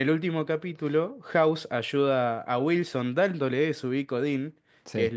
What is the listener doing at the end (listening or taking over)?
listening